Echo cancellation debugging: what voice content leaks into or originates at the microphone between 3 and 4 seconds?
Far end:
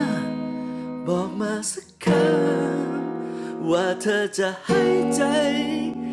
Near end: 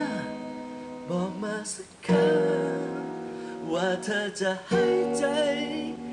echo only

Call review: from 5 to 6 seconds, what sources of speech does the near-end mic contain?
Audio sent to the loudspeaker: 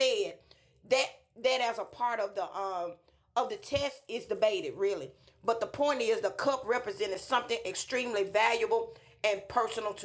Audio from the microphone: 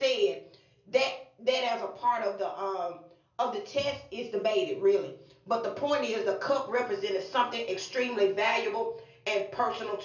echo only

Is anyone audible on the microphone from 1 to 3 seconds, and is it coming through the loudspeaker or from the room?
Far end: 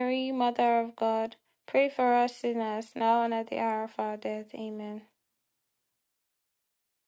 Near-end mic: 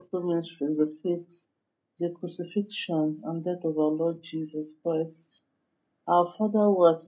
user only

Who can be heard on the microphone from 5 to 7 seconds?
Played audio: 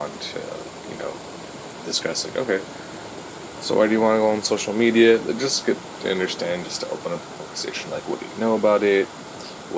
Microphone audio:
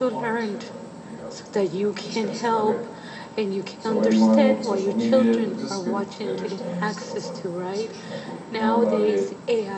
both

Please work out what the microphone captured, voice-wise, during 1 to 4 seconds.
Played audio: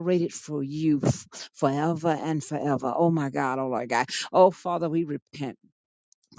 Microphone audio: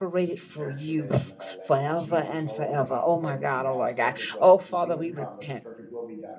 both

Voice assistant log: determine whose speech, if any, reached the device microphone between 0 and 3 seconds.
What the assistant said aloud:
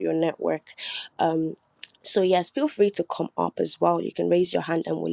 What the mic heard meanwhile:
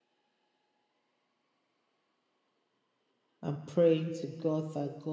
neither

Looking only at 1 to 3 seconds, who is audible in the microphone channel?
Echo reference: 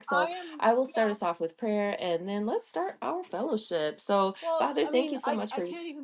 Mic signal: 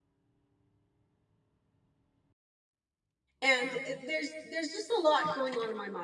neither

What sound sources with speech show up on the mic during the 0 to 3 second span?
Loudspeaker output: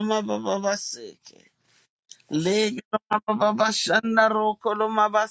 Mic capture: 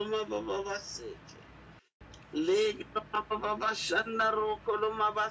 echo only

